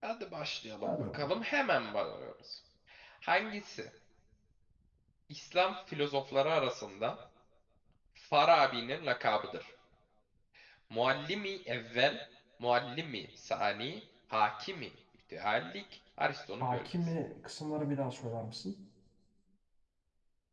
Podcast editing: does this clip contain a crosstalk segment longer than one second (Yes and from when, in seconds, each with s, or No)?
No